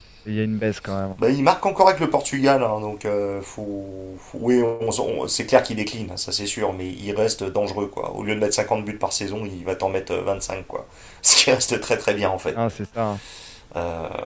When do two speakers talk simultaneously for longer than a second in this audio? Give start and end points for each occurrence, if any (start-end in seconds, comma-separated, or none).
none